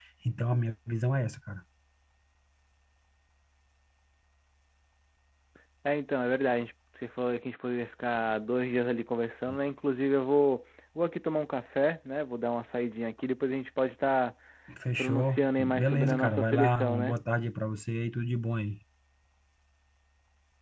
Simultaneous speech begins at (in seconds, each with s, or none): 15.0 s